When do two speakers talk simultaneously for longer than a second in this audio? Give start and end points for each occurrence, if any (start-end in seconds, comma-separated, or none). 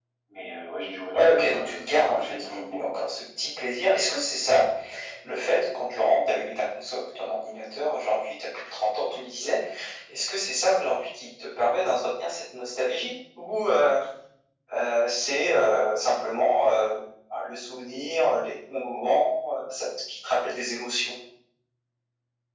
1.1-2.8